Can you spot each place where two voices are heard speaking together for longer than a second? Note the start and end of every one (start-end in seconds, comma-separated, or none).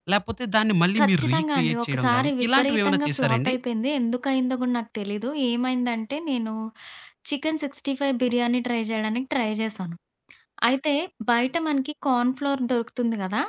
1.0-3.5